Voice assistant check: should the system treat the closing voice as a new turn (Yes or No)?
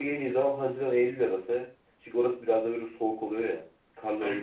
No